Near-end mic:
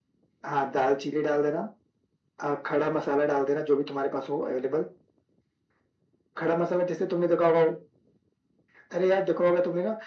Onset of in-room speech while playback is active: none

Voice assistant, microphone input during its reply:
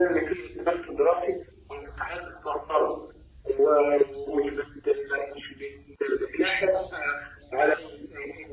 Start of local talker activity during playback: none

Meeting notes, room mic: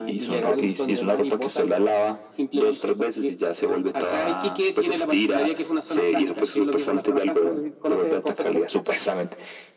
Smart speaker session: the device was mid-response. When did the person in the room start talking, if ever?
none

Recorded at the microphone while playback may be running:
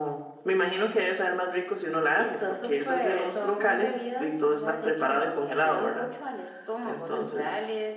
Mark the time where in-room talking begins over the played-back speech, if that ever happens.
none

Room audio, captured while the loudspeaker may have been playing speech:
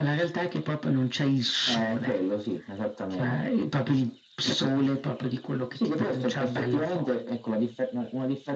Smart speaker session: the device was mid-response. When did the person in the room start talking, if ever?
none

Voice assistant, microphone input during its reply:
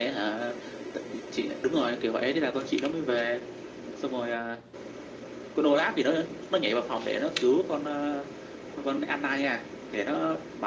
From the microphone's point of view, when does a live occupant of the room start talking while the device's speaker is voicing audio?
none

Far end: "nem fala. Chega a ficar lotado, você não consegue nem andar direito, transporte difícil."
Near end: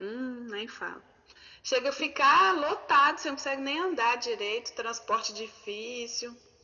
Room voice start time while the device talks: none

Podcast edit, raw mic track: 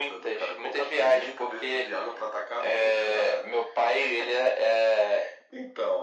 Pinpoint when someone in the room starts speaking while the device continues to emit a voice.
none

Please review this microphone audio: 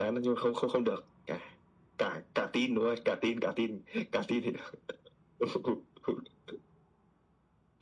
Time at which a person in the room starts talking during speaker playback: none

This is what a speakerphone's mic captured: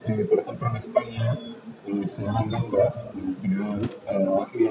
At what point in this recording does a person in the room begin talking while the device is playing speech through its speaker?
none

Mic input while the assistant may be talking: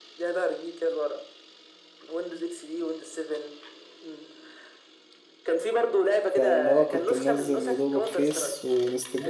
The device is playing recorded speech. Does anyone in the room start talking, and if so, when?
6.3 s

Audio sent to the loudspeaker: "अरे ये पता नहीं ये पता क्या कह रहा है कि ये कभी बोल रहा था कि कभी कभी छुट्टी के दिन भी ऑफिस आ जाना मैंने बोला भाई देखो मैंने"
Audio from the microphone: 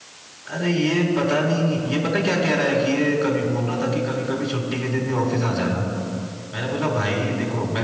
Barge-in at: none

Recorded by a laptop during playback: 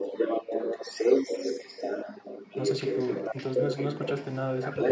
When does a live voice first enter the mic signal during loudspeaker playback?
2.6 s

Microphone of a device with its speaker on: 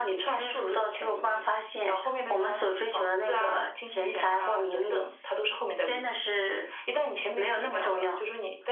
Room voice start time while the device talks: none

